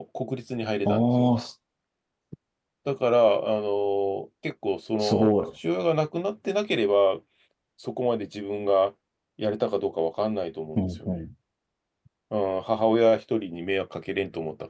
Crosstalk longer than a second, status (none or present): none